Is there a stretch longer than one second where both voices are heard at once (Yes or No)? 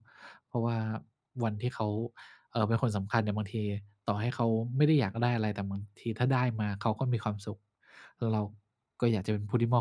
No